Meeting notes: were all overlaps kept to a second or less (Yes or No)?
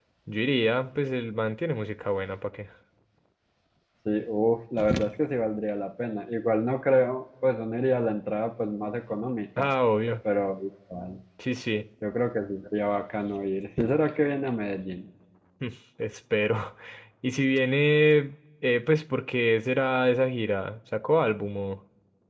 Yes